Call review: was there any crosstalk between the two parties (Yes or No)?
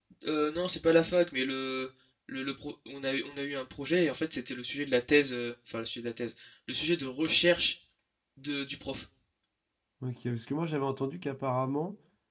No